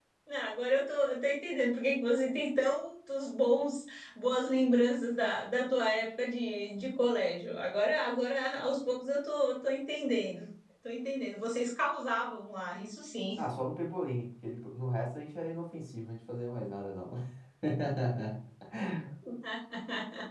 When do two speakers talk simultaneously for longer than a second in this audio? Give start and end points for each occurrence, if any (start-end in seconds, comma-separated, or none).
none